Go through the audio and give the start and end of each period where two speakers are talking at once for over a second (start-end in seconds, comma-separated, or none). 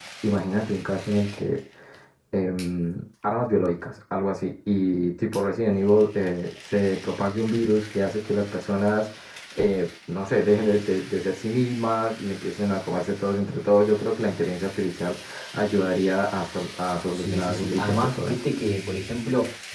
17.1-18.4